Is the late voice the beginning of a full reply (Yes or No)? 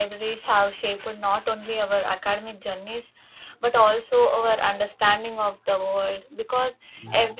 No